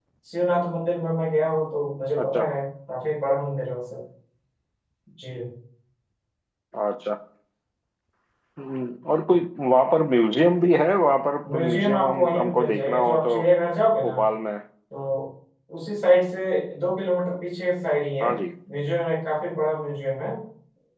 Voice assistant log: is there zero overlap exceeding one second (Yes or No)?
No